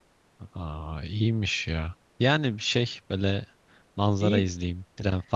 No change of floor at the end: Yes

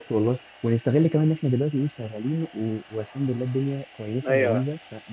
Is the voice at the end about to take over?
Yes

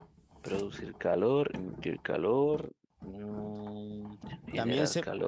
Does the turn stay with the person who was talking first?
No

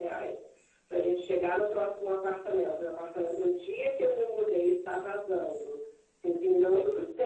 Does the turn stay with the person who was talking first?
Yes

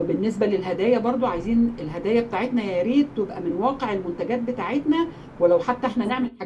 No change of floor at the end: Yes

